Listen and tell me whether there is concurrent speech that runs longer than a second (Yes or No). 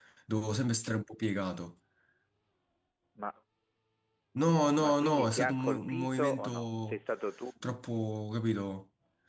Yes